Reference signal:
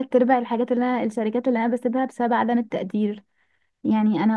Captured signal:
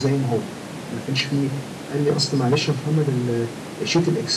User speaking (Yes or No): Yes